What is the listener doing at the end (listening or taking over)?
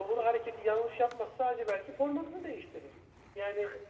listening